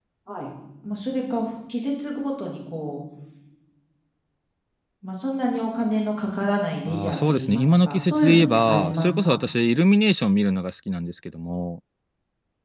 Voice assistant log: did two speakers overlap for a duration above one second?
Yes, from 6.9 s

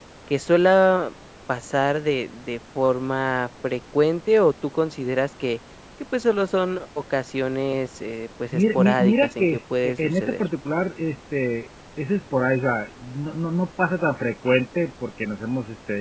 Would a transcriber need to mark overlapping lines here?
Yes, from 8.5 s

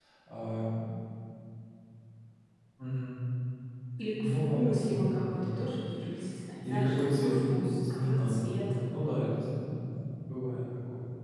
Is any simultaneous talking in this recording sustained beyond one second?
Yes, from 4.1 s

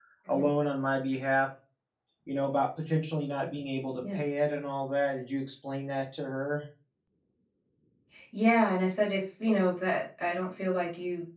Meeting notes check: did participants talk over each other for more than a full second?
No

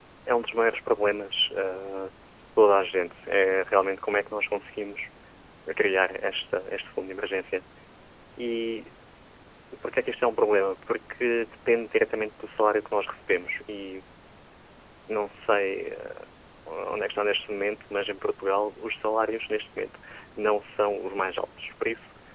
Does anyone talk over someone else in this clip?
No

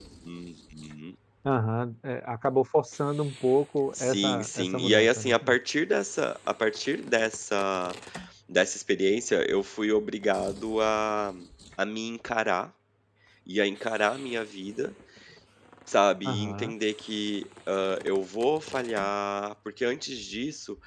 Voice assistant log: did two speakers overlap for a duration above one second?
Yes, from 4.0 s

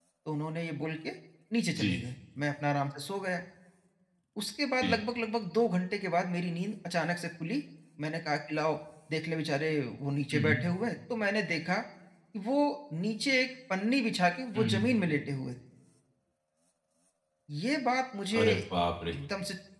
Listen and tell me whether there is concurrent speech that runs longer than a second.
No

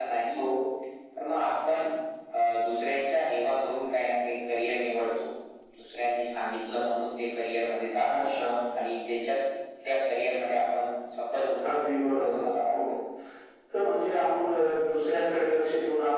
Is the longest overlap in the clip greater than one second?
No

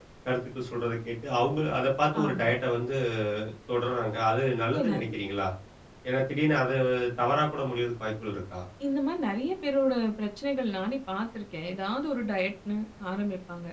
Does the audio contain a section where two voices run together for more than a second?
No

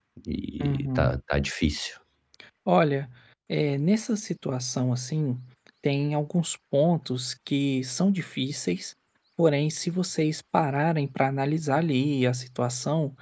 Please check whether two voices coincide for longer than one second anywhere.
No

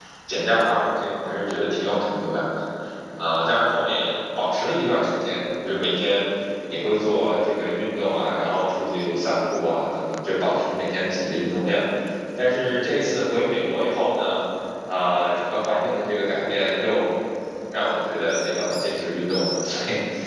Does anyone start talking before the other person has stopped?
No

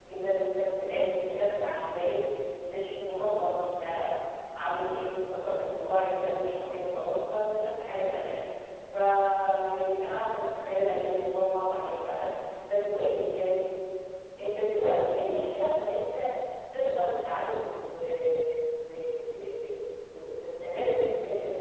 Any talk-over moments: No

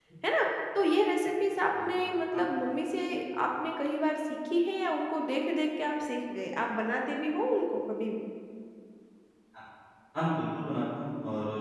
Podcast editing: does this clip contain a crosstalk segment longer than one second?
No

